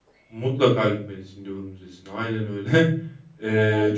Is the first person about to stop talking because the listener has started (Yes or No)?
No